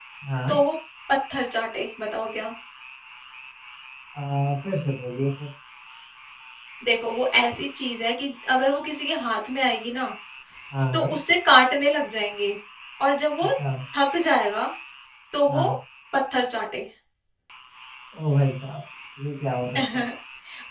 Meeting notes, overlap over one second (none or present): none